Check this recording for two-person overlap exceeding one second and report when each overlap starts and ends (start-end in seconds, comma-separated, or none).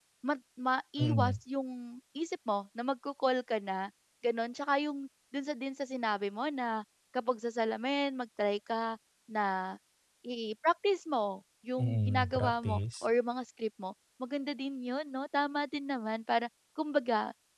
11.8-13.1